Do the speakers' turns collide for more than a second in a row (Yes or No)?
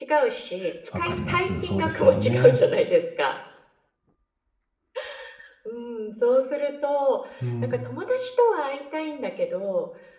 Yes